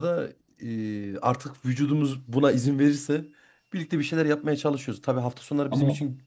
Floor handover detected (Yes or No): No